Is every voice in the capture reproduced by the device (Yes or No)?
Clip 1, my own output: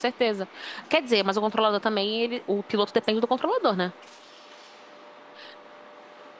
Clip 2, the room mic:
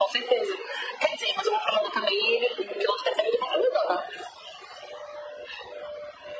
Yes